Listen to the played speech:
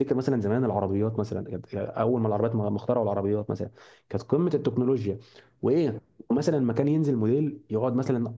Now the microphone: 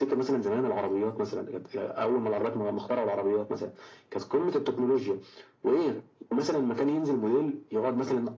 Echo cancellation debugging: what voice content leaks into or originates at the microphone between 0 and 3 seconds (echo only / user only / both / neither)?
echo only